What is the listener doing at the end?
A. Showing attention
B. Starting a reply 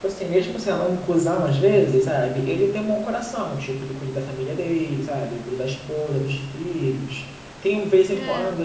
A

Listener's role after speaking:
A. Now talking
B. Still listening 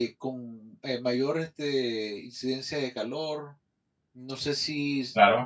B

